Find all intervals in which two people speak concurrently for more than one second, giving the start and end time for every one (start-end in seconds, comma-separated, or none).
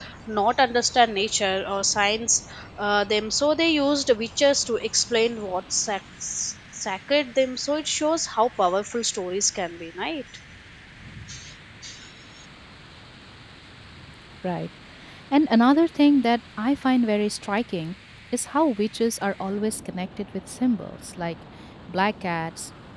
none